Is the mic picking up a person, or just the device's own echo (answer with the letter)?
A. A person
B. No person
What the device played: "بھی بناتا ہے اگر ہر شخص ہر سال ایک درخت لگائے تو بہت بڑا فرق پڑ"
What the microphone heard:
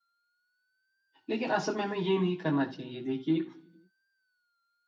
A